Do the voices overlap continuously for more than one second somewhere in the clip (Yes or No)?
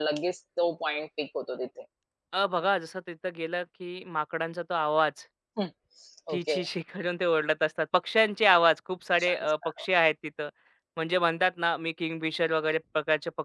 No